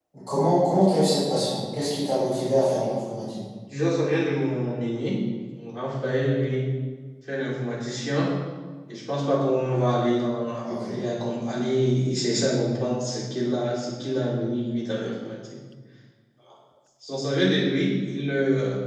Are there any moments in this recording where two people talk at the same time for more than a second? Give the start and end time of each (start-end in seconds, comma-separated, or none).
none